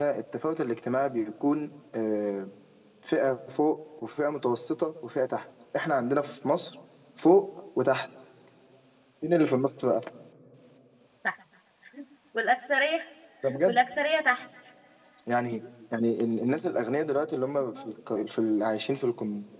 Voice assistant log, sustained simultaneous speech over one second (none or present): none